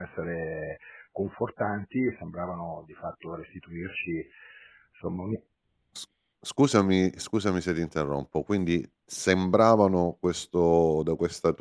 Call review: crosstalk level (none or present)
none